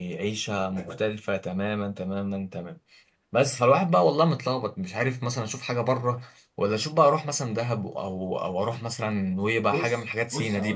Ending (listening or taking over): taking over